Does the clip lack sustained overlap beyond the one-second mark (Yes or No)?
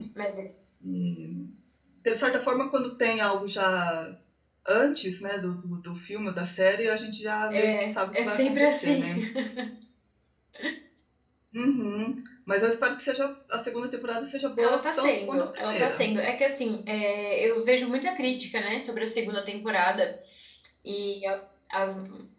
No